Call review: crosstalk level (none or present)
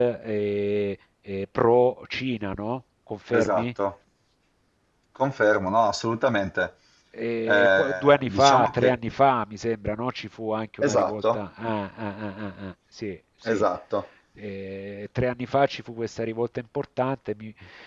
present